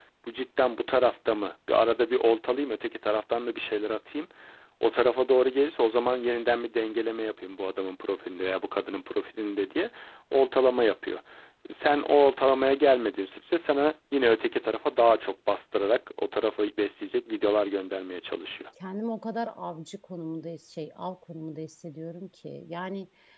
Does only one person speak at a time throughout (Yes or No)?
Yes